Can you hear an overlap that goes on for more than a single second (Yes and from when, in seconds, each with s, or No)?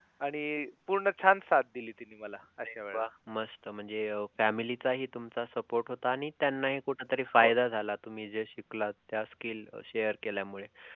No